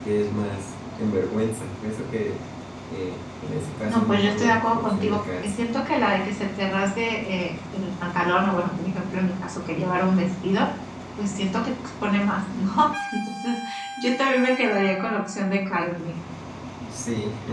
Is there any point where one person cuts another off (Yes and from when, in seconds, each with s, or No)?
Yes, from 3.9 s